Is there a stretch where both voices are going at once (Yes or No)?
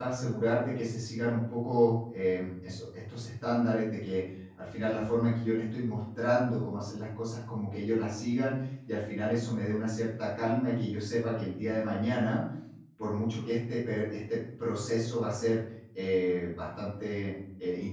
No